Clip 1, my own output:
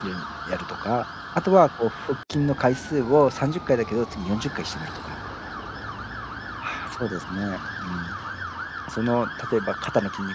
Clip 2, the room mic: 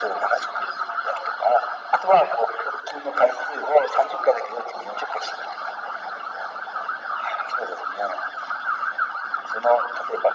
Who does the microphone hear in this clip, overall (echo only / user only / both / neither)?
echo only